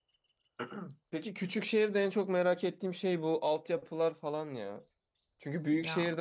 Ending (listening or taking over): listening